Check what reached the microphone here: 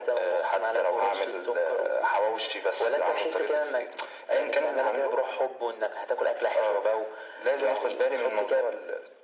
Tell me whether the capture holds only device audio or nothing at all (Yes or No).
Yes